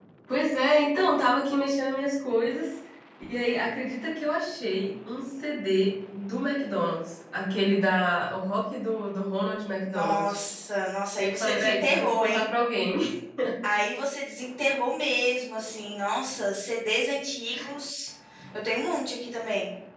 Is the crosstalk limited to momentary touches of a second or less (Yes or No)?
No